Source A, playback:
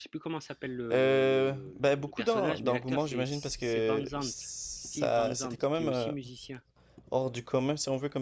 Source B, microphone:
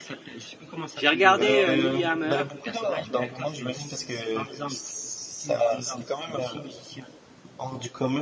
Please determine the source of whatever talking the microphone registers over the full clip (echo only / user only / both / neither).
both